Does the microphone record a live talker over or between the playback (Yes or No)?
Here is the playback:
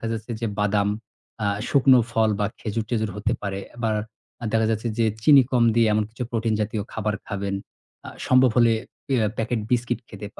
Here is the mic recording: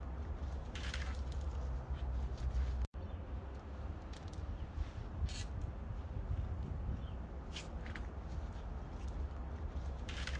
No